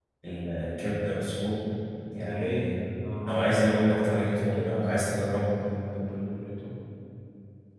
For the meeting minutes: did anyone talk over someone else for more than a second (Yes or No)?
Yes